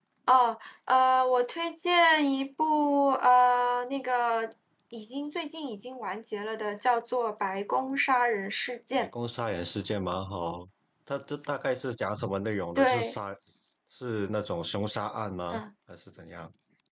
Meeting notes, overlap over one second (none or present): none